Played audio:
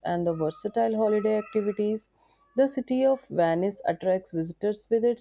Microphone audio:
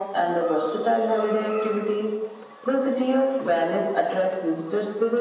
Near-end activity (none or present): none